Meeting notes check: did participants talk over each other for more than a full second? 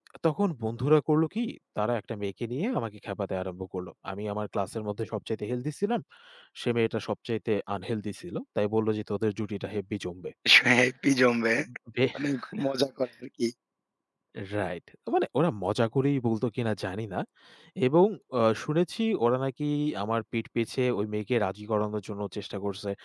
No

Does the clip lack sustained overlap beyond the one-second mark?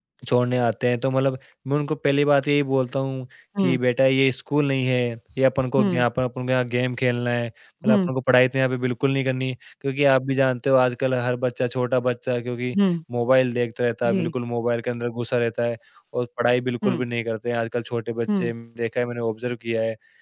Yes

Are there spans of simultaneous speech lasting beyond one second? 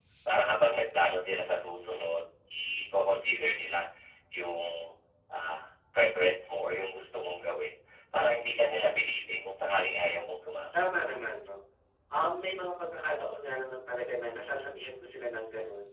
No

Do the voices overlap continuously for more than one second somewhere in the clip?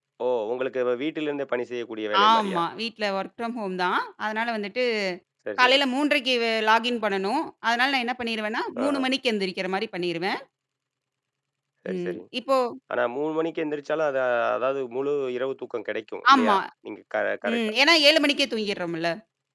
No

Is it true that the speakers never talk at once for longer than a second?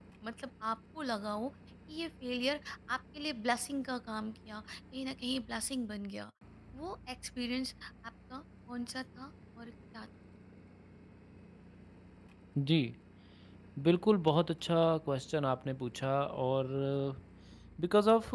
Yes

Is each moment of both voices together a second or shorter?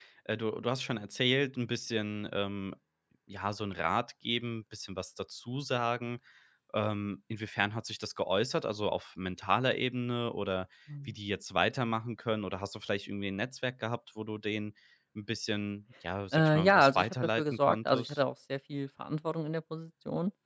No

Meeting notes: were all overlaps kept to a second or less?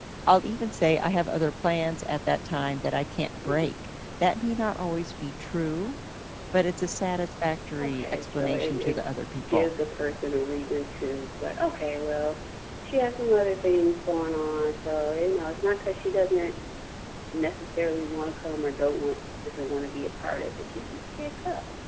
No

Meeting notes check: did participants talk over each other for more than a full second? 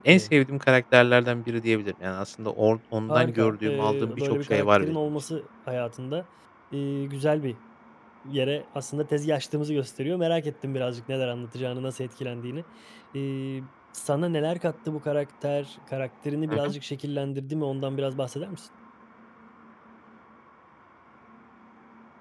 Yes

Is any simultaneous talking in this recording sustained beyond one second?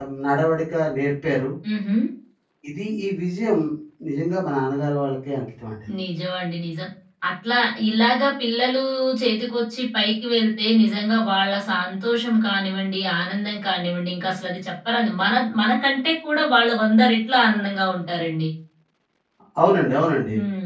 No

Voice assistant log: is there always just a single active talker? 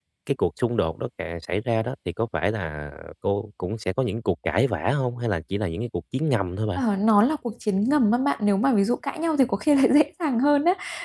Yes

